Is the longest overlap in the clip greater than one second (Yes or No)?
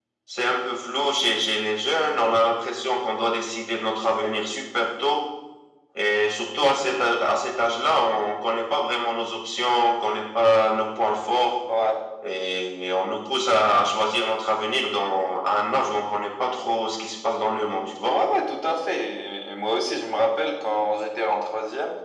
No